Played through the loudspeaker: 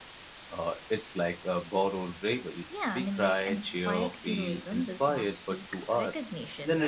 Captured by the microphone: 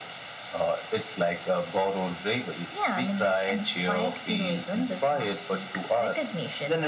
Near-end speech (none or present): none